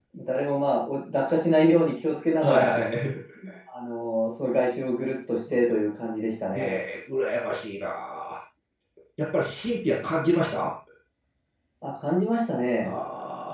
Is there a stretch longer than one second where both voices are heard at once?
No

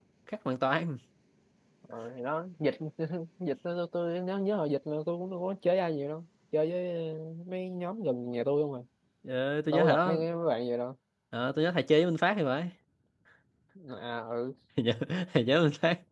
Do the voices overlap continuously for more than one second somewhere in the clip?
No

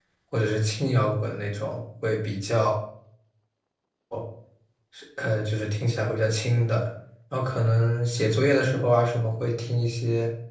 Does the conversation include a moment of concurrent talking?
No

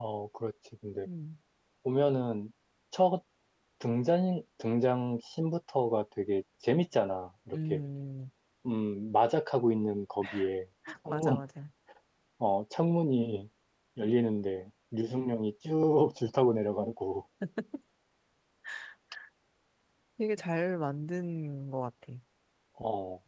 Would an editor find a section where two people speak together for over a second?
No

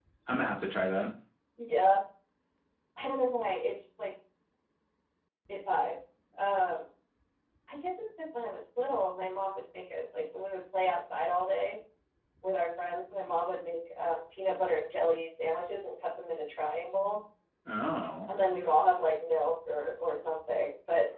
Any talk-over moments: No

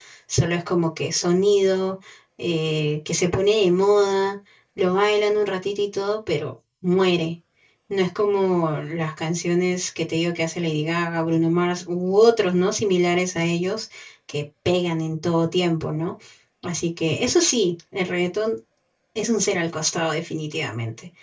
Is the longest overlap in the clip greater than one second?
No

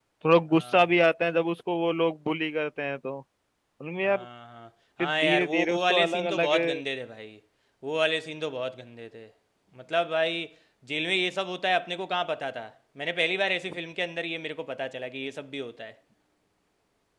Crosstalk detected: Yes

